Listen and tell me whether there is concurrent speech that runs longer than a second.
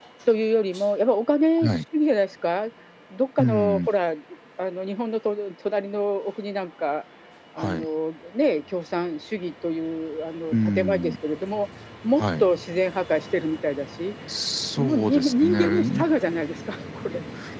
Yes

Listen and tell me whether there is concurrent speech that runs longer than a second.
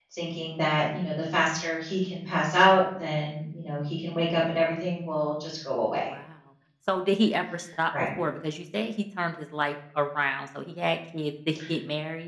No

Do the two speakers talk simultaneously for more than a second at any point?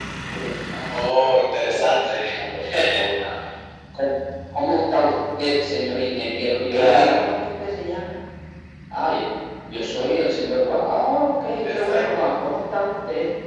Yes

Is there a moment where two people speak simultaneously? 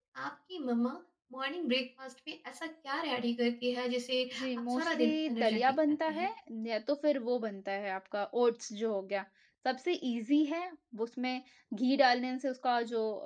Yes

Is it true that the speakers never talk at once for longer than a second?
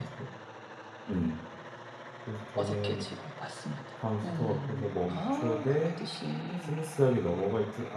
No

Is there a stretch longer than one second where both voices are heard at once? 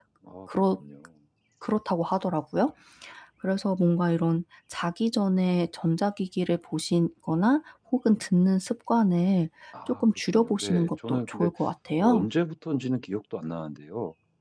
Yes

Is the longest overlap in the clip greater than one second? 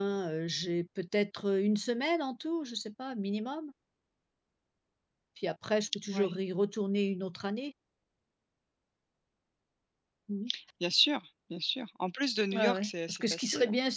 Yes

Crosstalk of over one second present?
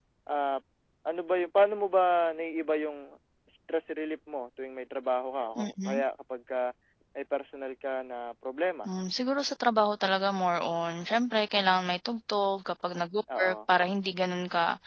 No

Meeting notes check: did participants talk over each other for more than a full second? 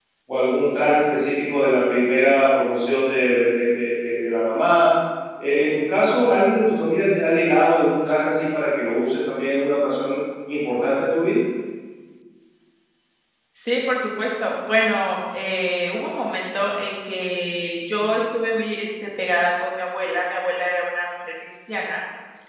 No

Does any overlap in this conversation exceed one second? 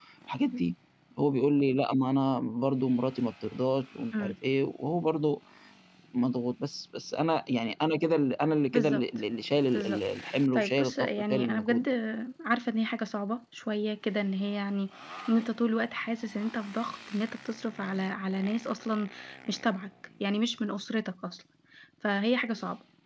Yes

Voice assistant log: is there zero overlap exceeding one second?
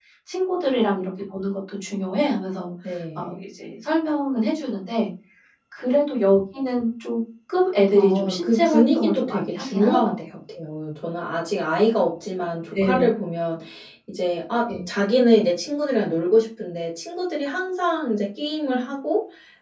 No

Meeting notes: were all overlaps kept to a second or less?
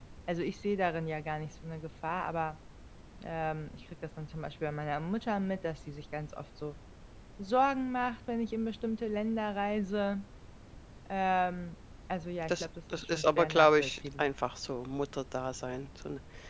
No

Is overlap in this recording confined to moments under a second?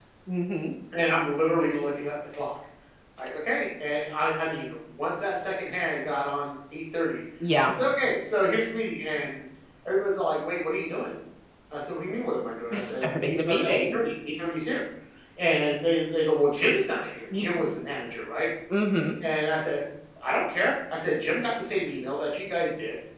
No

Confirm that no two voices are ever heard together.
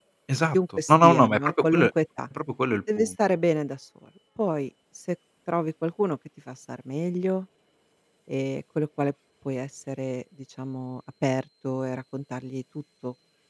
No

